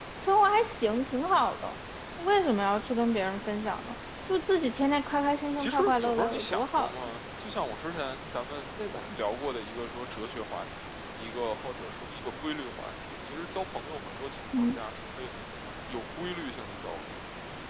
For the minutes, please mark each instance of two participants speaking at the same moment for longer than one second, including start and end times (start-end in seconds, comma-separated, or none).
5.6-7.0